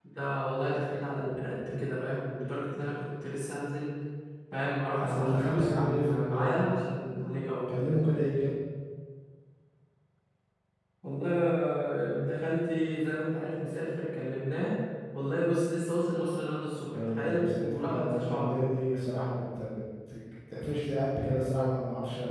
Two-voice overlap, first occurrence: 5 s

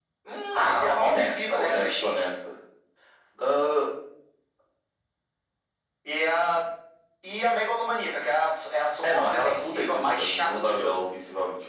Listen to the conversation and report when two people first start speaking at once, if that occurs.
1 s

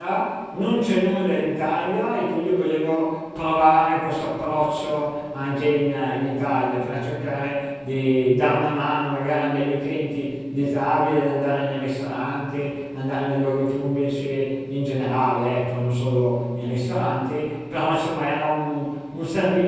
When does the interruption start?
none

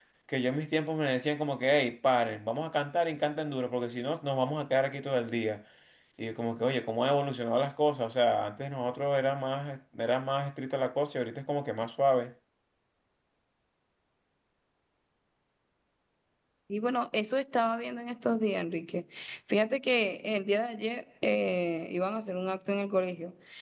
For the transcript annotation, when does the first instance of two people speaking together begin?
none

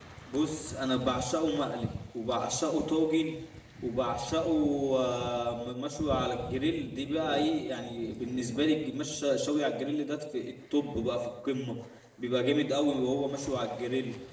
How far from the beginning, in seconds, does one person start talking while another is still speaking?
none

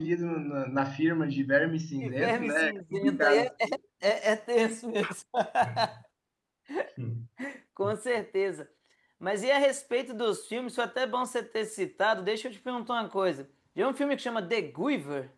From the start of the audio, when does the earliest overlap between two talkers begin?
2 s

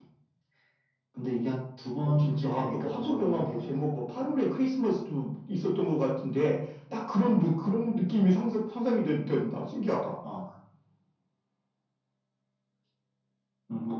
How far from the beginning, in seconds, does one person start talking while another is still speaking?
2 s

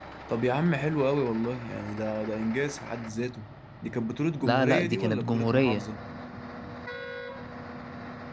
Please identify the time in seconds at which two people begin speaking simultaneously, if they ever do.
4 s

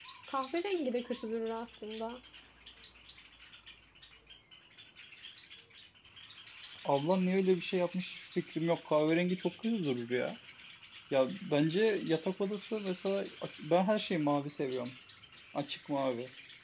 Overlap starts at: none

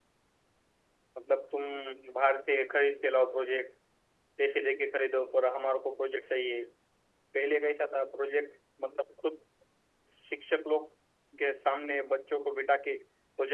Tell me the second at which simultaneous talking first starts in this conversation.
none

